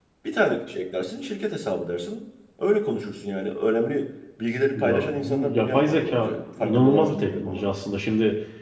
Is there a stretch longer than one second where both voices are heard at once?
Yes, from 4.8 s

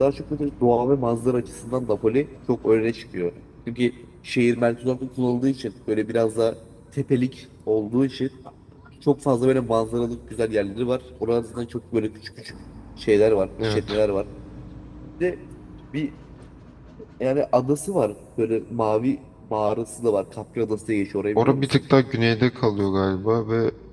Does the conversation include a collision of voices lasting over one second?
No

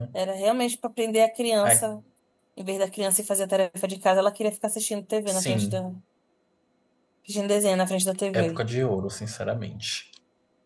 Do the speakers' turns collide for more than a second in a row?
No

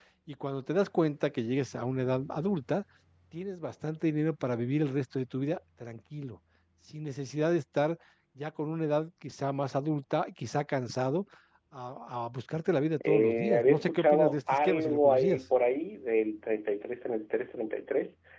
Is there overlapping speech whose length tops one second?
Yes, from 13.0 s

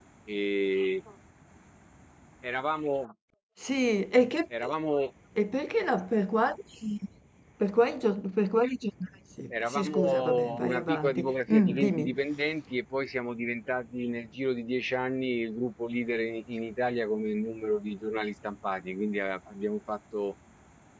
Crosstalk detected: Yes, from 9.5 s

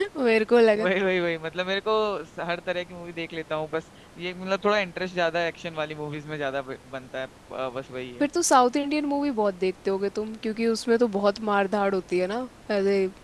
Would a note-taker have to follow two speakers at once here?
No

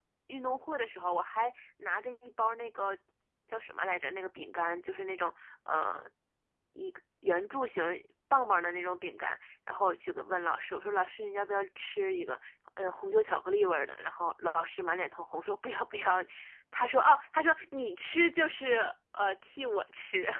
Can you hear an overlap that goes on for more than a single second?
No

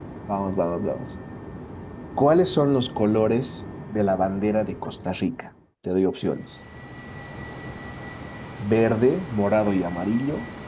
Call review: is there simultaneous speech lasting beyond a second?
No

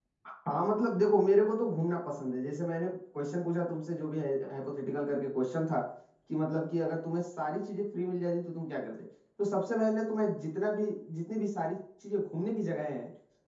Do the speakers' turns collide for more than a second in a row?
No

